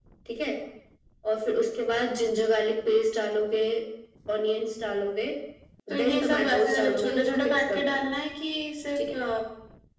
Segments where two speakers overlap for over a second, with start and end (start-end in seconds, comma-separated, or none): 5.9-8.1